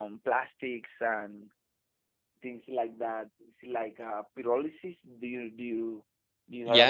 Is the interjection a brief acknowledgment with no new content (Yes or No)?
No